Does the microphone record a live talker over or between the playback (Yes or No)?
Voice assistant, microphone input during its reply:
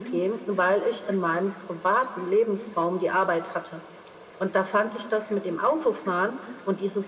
No